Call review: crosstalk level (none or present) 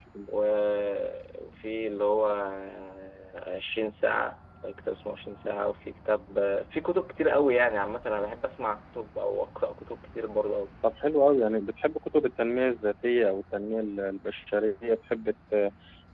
none